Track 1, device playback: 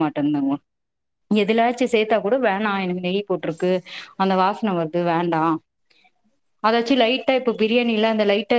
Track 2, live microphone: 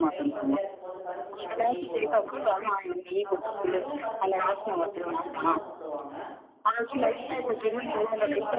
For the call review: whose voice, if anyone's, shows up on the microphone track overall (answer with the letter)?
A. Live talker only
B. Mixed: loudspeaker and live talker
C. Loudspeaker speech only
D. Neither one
B